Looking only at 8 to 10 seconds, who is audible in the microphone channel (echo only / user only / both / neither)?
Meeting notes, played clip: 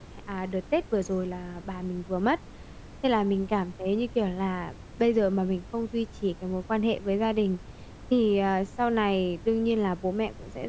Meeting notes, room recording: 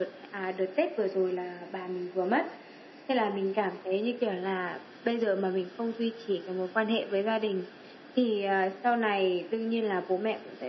echo only